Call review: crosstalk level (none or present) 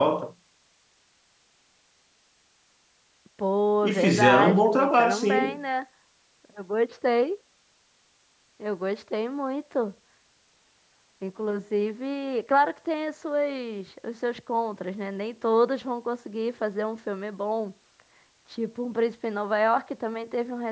present